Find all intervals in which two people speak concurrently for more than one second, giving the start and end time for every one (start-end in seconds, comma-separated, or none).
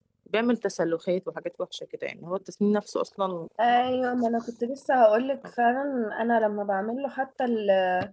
none